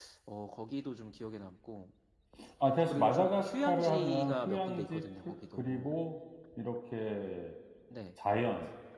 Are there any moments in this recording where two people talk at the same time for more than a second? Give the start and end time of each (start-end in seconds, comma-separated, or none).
2.9-5.9